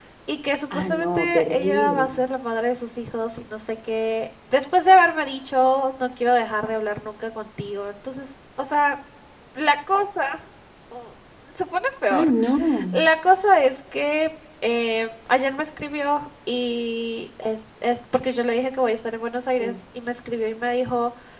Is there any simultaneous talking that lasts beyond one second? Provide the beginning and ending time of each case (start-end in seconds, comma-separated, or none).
0.7-2.1